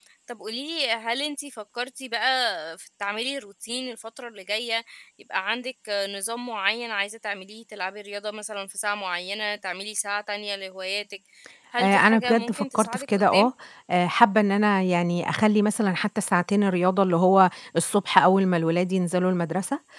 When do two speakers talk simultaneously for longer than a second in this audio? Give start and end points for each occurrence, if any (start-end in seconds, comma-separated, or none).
11.8-13.5